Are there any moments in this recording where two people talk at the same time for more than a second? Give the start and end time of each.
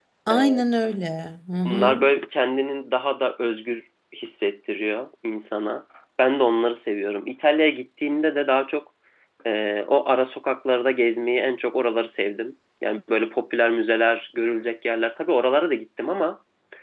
none

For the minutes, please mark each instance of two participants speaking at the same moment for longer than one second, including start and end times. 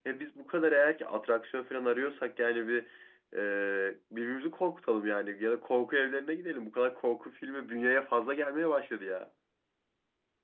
none

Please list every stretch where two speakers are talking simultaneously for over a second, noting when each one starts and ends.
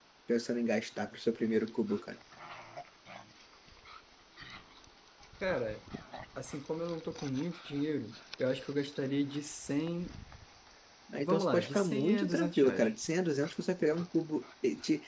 11.2-12.9

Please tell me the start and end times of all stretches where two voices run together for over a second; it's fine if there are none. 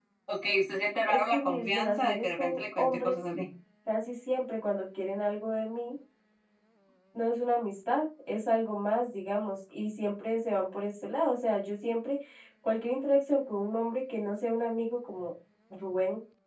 1.1-3.2

